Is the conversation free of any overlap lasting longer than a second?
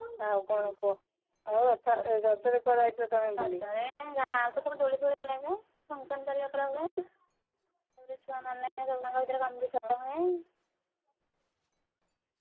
Yes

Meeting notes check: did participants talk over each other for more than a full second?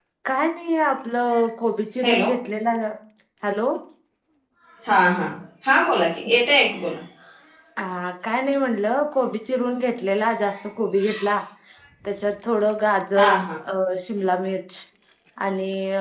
No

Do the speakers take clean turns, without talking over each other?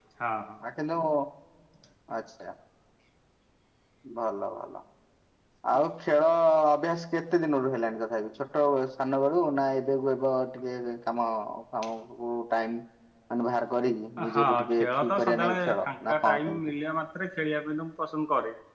No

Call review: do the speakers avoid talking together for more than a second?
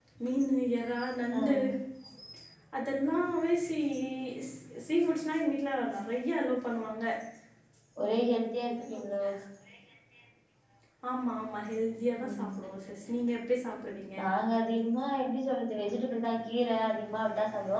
Yes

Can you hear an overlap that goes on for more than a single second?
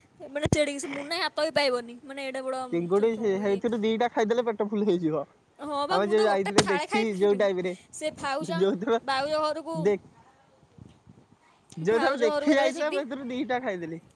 Yes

